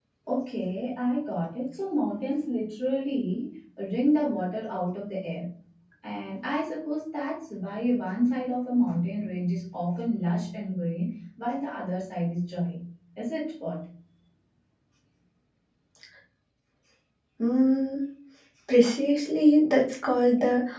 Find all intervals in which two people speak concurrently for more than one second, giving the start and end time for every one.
none

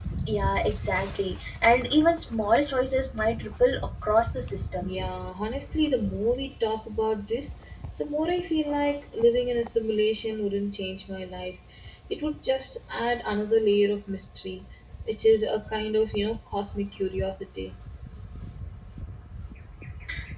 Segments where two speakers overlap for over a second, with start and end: none

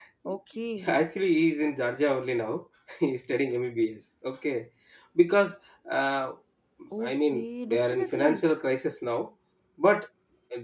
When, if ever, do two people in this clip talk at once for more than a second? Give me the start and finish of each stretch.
7.0-8.4

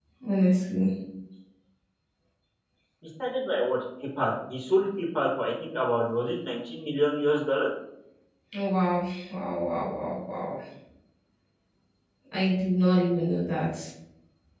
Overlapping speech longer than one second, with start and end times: none

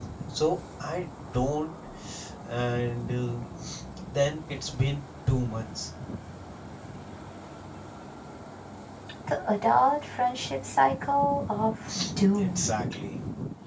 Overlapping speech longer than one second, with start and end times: none

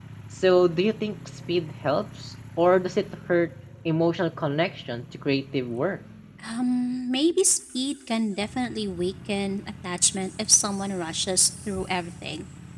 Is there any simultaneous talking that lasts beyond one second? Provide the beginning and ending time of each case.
none

